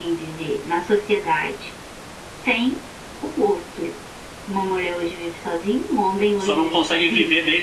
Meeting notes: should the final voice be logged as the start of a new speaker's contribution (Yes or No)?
Yes